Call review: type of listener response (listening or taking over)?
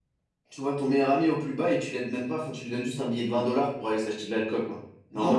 taking over